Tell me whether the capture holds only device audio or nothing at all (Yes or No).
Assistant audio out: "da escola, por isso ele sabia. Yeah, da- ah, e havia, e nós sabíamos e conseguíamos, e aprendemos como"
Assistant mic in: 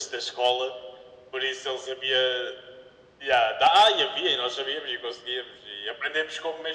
Yes